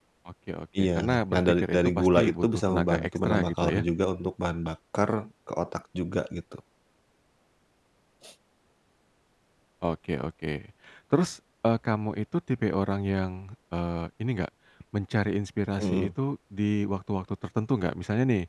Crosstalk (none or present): present